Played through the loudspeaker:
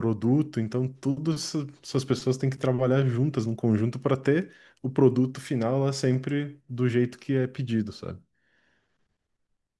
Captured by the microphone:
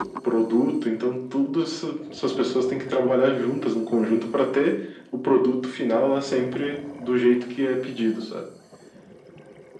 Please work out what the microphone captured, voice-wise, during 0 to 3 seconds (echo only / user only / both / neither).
echo only